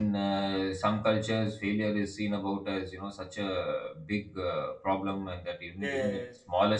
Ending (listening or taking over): listening